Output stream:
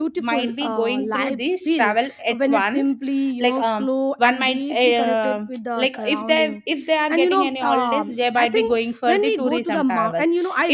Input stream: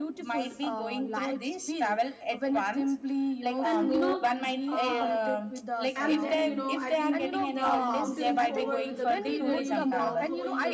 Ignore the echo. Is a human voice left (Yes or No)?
Yes